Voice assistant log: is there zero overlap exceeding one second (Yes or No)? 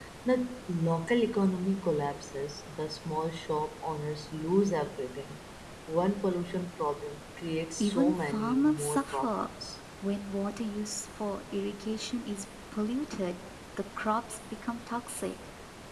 No